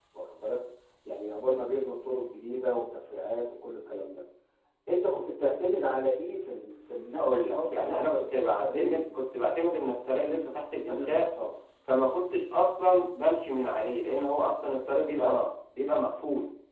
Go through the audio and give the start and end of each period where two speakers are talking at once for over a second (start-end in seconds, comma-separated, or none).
7.2-9.2